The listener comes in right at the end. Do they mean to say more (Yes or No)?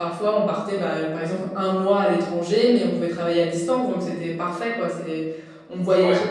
No